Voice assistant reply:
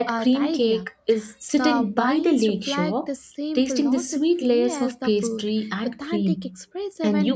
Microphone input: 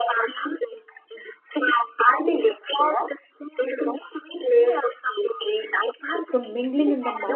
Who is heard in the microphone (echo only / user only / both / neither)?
both